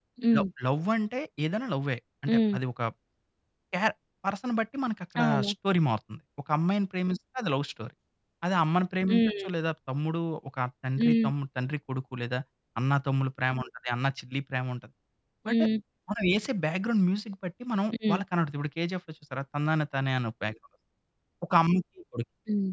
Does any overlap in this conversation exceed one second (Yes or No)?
No